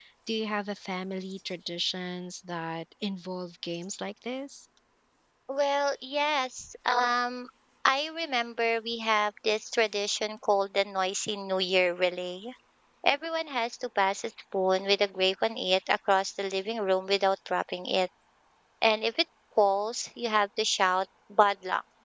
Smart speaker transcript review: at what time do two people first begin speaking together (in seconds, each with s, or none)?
none